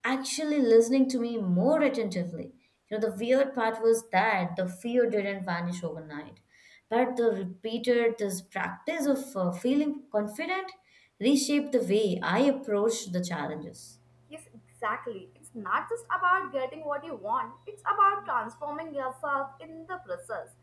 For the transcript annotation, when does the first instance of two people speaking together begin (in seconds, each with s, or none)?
none